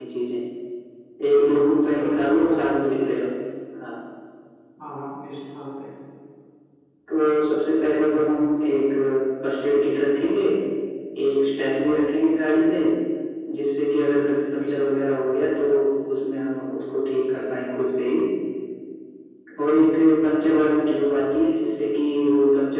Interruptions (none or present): present